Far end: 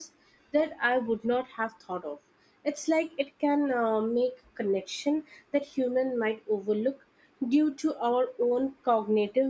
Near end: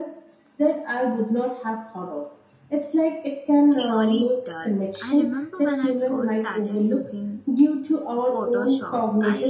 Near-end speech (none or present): present